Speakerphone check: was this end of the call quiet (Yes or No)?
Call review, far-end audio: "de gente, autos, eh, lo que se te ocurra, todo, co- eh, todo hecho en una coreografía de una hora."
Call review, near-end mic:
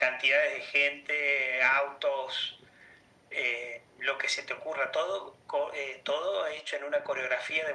Yes